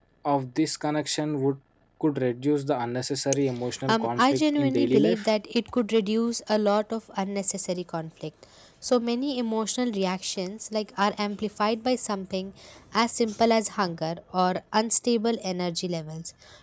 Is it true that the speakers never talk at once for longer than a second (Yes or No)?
No